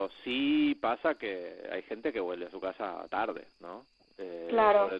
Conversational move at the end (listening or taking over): listening